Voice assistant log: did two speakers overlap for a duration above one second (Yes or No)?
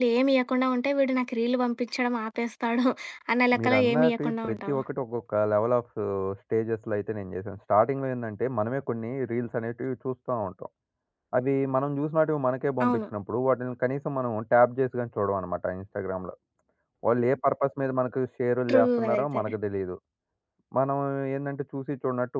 Yes